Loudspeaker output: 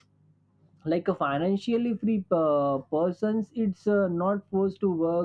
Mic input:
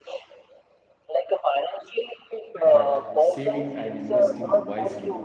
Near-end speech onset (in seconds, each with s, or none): 2.6 s